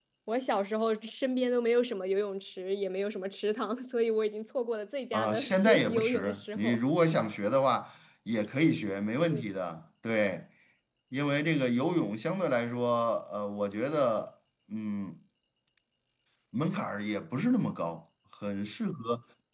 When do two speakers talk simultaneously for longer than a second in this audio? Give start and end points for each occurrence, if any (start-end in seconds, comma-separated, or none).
5.1-6.8